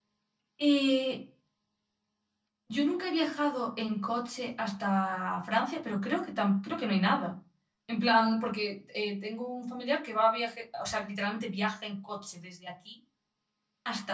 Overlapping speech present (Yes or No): No